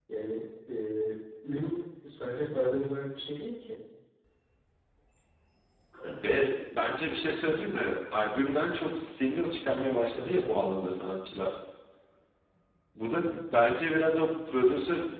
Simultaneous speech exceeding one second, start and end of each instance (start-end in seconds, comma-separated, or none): none